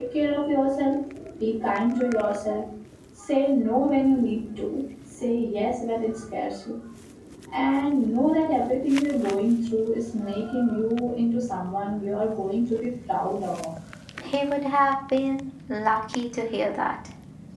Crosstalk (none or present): none